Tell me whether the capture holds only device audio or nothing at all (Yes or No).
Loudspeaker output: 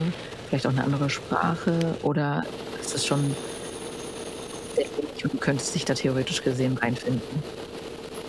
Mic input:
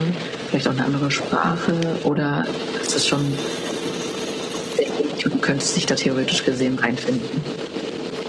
Yes